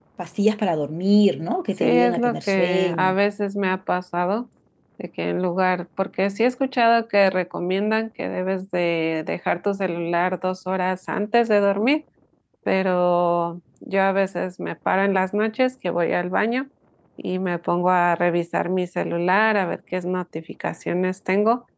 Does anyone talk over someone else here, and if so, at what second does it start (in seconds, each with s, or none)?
1.8 s